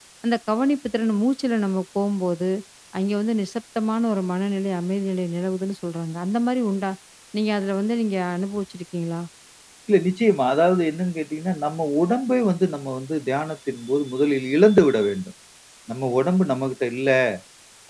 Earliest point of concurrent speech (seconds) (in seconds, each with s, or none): none